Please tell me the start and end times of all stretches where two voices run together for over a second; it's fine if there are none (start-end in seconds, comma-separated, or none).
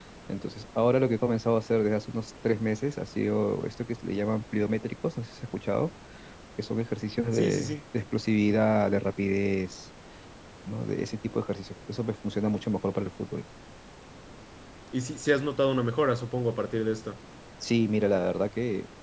none